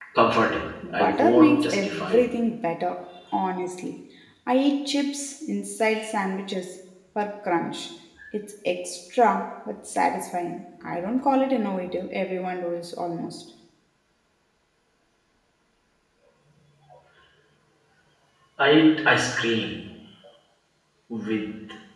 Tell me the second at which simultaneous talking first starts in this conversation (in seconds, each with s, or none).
0.9 s